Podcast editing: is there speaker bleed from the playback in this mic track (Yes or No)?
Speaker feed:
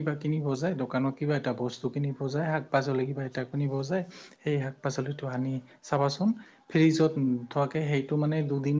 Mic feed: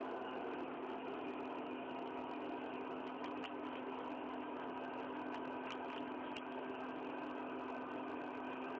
No